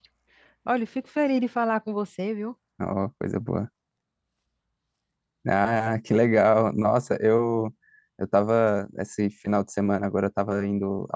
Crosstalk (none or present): none